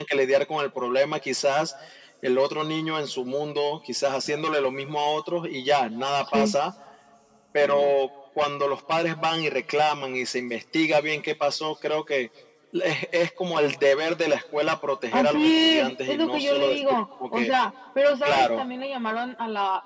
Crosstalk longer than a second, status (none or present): present